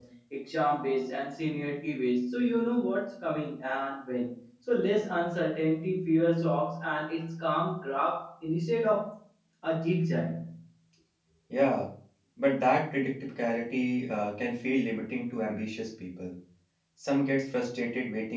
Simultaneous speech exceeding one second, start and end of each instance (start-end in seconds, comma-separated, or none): none